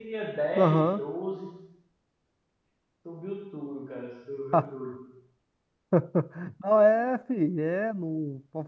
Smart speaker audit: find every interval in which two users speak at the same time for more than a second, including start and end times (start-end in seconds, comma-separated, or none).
none